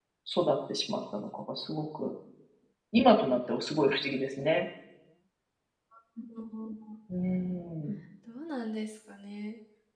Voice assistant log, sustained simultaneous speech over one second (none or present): none